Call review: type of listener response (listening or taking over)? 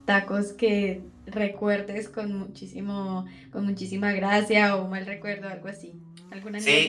taking over